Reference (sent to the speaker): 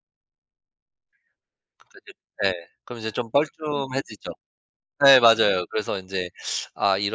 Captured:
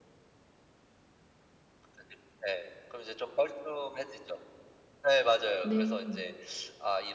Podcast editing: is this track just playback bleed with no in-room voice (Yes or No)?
No